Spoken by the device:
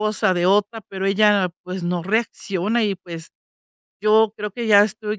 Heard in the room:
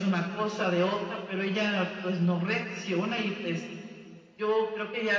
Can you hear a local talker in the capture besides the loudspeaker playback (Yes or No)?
No